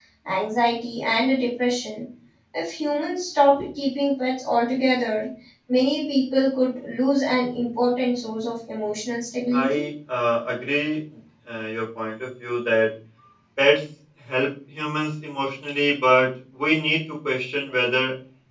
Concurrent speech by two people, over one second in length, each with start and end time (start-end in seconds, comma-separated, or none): none